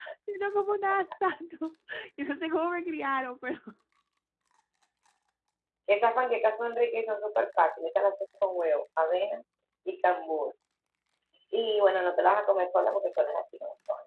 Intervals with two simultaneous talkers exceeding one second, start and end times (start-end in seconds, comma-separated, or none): none